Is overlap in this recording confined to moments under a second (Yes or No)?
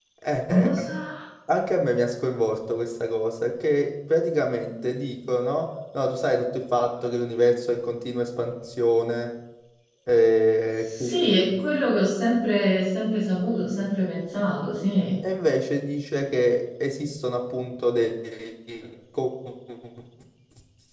Yes